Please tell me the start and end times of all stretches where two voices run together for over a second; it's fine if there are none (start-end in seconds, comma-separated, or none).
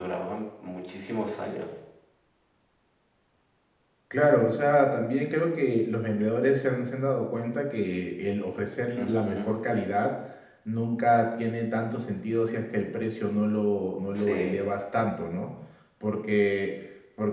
none